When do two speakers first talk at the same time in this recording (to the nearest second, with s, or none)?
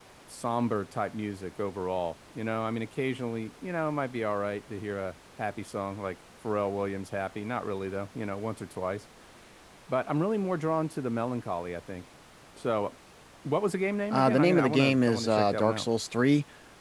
14 s